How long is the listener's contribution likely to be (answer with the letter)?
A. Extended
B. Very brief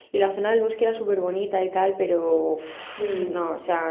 B